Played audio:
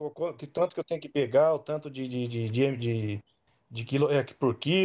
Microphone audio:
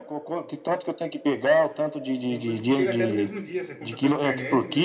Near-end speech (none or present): present